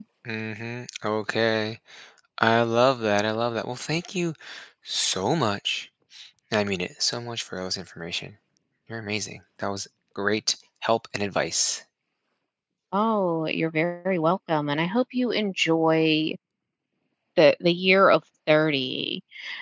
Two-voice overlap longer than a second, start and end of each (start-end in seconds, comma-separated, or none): none